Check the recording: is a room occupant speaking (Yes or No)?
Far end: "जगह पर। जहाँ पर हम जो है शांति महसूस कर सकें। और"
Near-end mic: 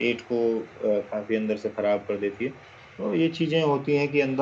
Yes